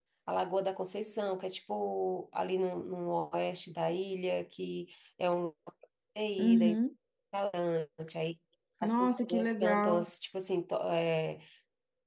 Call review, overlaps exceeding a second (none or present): present